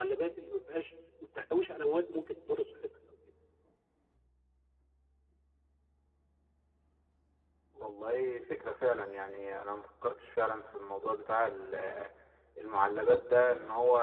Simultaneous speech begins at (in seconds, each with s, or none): none